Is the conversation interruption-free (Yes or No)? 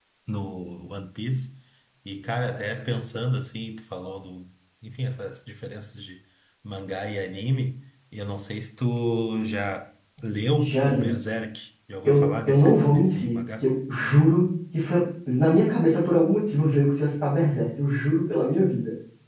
No